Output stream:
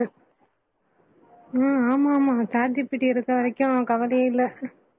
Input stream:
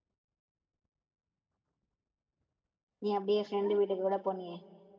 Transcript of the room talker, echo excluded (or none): நீ அப்டியே ஃப்ரெண்டு வீட்டுக்கு கூட போனியே